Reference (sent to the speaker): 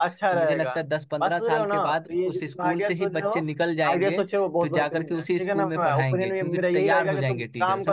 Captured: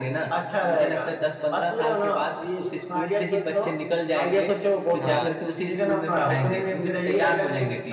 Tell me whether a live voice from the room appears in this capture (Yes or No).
Yes